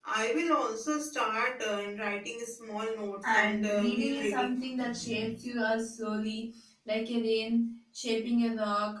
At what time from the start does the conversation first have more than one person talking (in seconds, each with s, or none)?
3.2 s